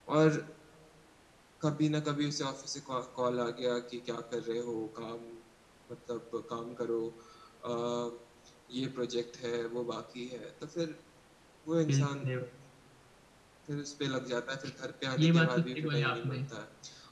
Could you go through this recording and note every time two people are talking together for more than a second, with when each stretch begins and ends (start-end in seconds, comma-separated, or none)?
15.2-16.4